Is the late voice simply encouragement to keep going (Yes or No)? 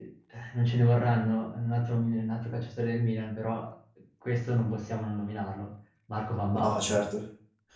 No